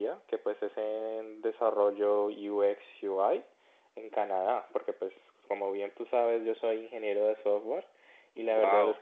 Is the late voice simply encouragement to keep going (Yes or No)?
Yes